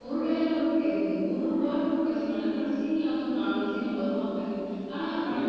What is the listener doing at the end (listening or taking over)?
listening